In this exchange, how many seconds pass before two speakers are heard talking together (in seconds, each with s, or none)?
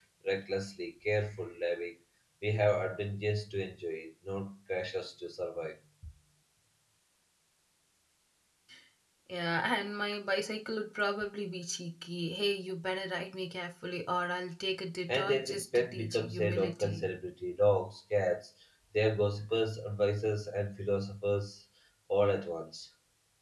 15.1 s